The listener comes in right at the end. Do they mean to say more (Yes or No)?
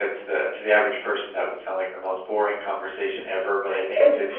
No